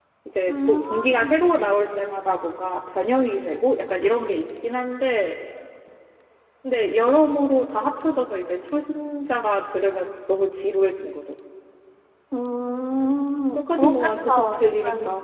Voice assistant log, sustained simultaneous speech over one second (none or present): present